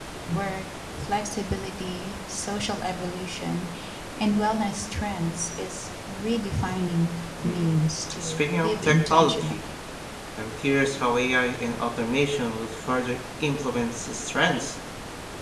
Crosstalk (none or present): present